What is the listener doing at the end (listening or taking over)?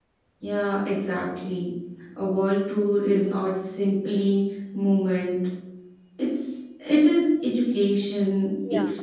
listening